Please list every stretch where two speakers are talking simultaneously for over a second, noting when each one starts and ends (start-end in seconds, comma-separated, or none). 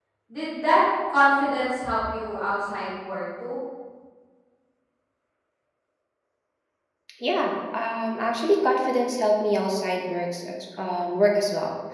none